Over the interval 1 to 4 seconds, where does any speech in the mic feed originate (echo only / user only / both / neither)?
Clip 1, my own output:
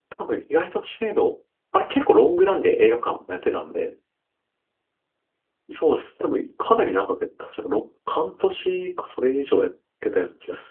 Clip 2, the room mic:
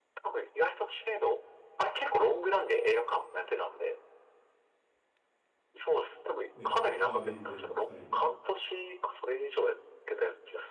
echo only